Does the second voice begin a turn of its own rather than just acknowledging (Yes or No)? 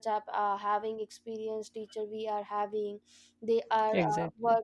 No